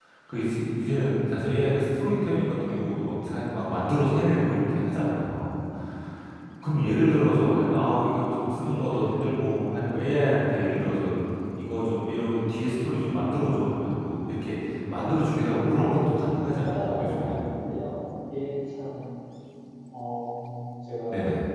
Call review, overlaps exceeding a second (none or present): present